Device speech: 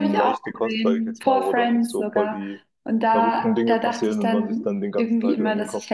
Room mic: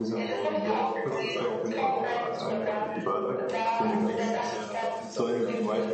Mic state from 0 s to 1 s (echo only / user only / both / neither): both